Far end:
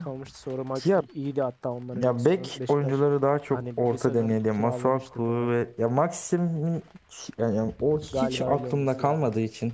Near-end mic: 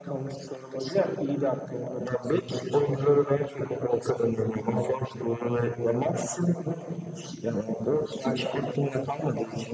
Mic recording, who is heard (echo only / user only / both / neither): echo only